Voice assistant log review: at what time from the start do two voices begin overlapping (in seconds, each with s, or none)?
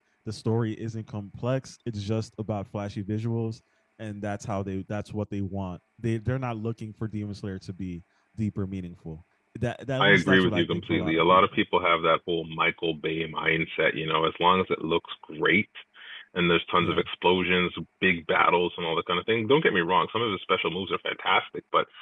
10.0 s